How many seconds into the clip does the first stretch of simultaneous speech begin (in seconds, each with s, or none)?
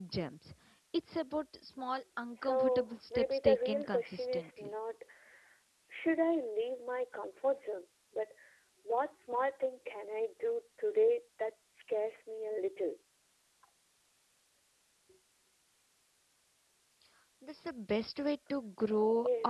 2.4 s